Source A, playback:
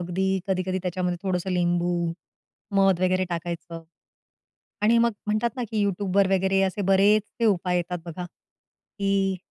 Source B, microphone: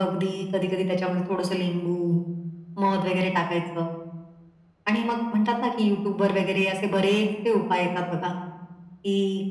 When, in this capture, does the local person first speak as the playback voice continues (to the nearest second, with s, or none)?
none